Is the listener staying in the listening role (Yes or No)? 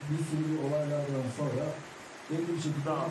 Yes